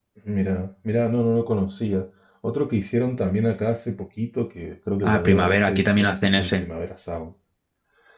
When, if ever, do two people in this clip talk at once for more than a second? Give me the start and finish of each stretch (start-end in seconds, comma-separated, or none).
5.0-6.6